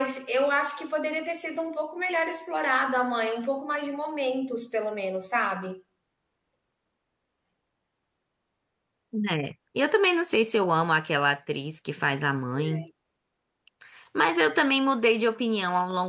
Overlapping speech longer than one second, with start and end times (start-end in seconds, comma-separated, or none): none